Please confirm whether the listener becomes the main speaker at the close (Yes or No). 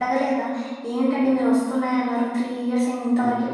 Yes